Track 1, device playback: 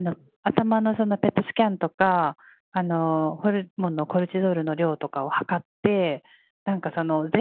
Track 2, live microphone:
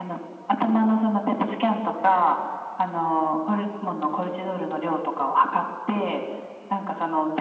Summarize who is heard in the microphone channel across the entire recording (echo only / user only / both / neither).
echo only